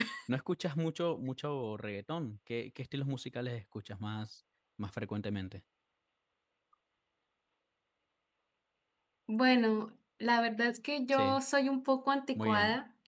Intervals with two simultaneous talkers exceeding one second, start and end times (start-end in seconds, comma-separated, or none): none